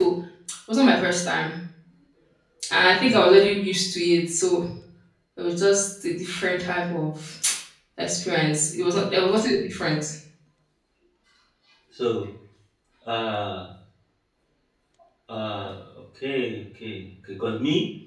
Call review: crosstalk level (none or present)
none